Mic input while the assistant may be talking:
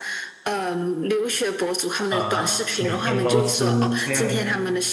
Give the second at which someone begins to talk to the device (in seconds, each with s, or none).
2.1 s